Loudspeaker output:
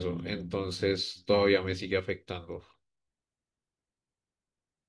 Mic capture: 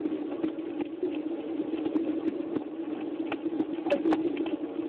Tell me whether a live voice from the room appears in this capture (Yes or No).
No